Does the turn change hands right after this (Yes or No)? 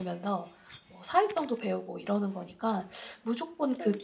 No